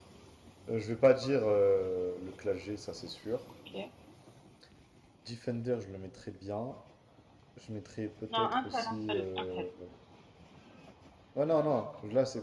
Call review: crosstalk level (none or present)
present